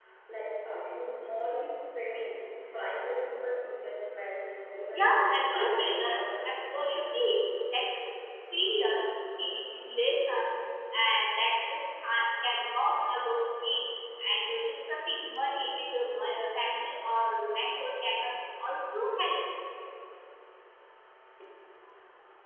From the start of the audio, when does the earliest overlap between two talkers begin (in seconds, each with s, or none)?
4.9 s